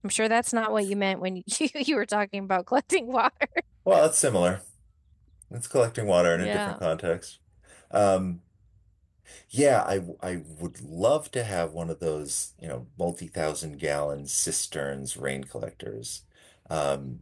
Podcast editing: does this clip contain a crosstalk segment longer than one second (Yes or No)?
No